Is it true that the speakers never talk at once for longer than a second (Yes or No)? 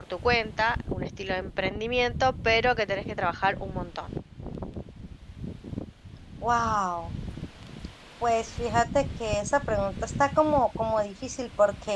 Yes